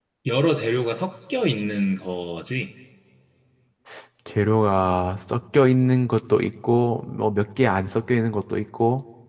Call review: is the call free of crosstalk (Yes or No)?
Yes